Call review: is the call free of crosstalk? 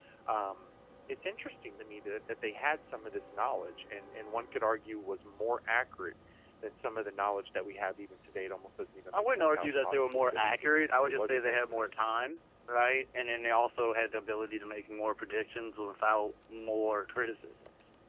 No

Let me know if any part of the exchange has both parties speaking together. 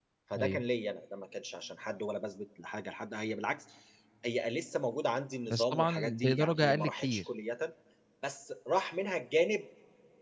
Yes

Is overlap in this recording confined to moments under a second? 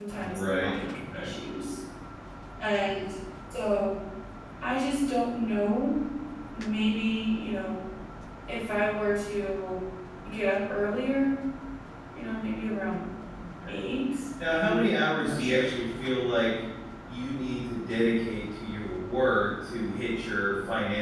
No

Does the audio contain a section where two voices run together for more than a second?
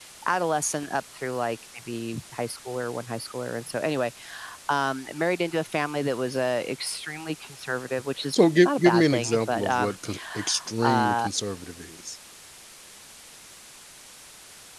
Yes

